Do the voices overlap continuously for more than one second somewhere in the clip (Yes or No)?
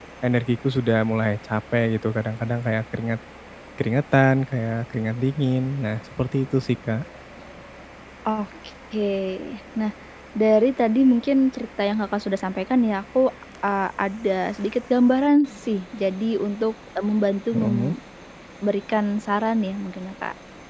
No